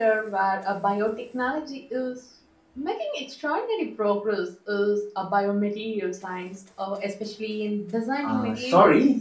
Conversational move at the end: taking over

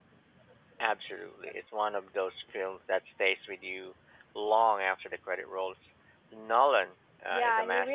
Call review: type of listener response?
taking over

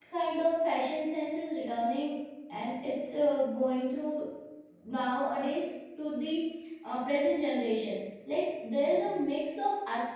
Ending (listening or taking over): listening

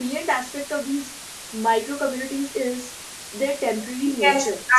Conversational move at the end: taking over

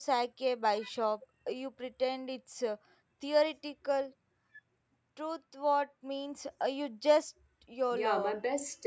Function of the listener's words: taking over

